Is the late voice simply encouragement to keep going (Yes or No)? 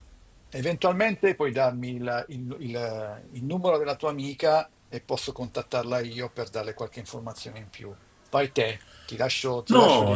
No